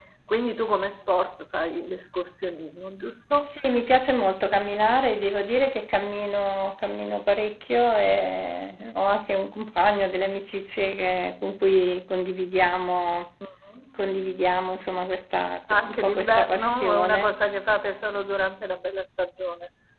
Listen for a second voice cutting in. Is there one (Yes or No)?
Yes